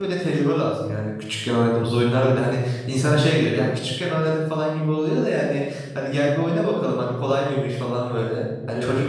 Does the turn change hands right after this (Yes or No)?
No